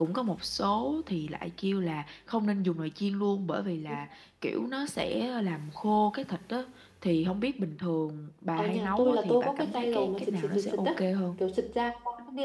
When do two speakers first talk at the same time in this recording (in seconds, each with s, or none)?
8.6 s